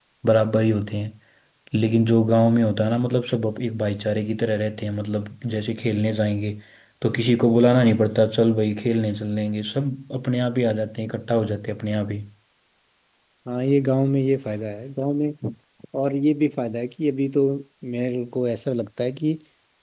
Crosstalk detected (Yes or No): No